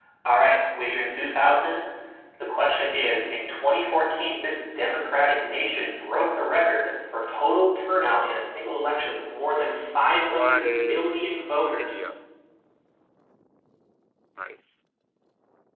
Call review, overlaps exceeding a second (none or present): present